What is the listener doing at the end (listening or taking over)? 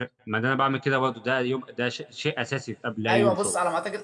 taking over